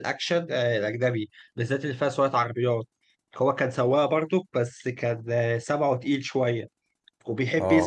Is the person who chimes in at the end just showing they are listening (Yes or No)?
Yes